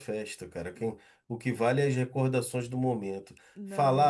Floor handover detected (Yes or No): No